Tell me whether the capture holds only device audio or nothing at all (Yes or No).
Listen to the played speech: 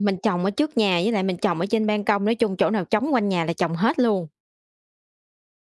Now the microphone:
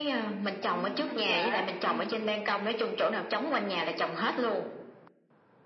No